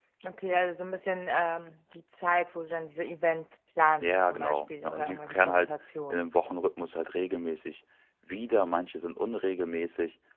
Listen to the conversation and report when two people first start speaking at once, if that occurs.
4.0 s

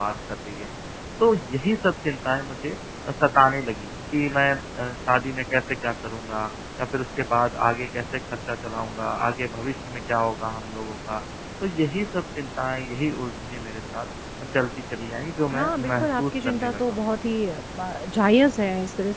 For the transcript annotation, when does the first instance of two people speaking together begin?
15.5 s

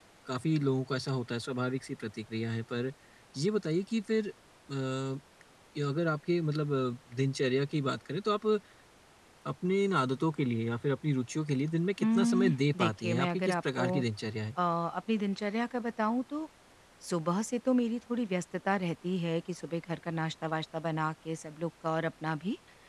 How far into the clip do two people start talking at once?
12.0 s

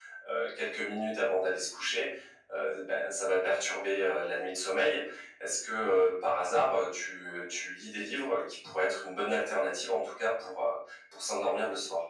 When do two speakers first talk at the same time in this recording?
none

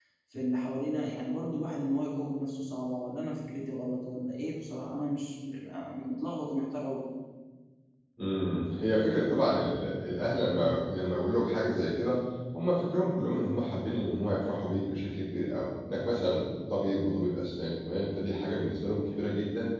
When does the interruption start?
none

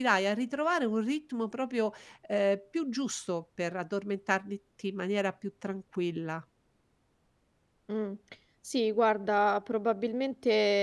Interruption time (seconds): none

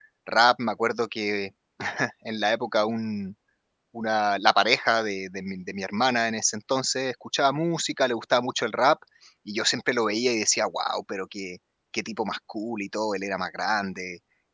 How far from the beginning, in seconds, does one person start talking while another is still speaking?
none

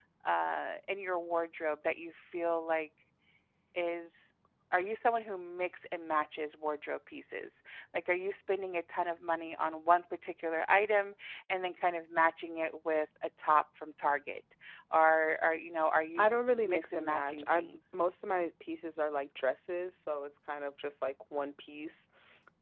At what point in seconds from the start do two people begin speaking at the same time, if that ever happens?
16.2 s

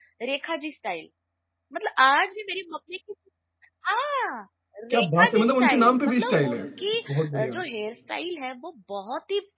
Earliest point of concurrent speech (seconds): 4.9 s

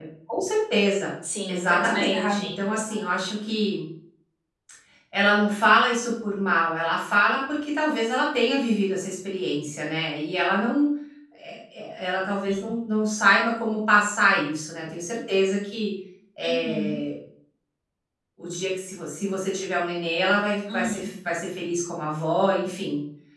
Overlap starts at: 1.5 s

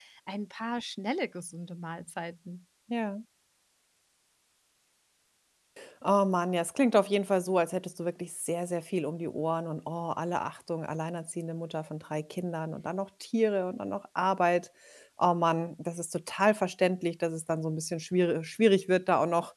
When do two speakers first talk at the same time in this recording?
none

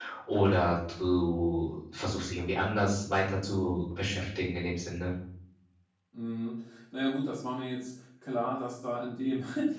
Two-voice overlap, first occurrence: none

